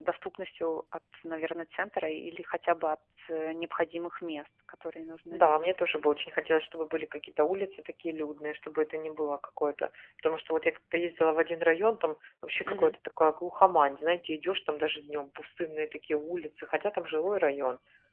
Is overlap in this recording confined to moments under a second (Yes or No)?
Yes